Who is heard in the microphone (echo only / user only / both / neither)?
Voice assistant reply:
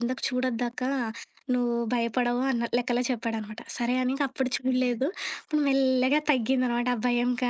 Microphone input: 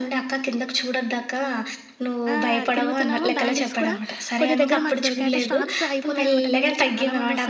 both